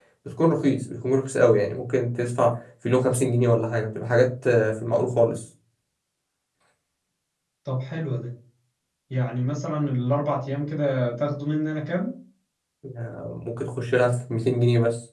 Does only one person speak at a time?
Yes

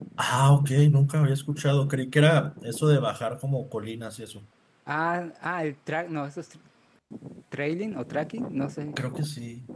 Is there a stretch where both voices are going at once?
No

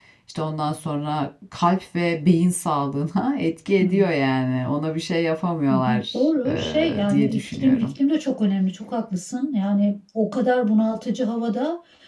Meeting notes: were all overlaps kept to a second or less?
No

